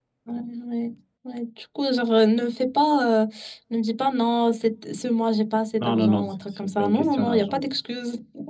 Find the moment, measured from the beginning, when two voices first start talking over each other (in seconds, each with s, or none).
5.8 s